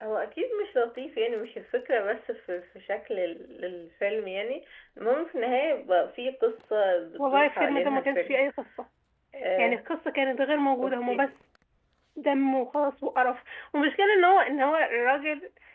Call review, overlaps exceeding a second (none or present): present